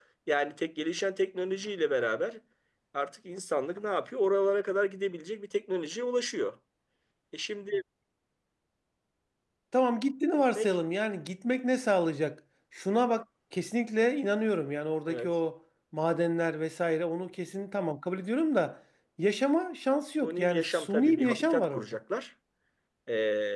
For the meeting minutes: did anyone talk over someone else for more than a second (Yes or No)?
Yes